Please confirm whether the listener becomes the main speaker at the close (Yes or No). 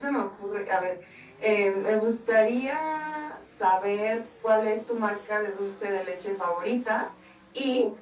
No